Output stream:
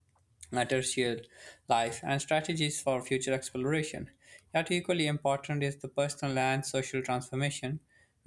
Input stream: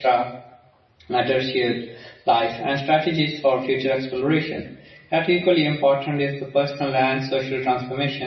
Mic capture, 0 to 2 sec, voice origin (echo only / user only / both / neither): echo only